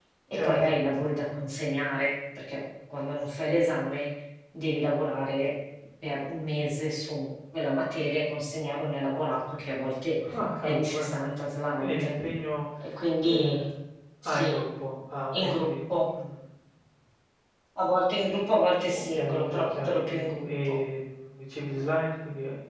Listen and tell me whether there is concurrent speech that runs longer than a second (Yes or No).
Yes